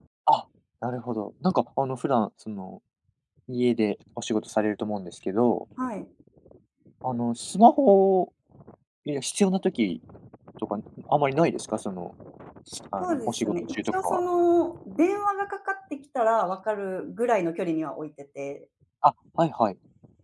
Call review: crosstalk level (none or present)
present